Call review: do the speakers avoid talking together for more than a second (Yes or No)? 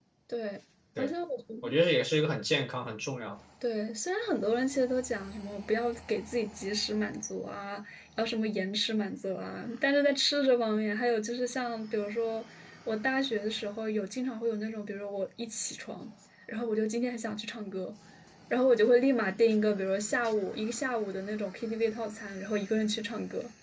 Yes